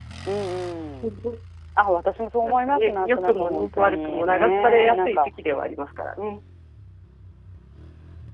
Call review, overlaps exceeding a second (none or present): present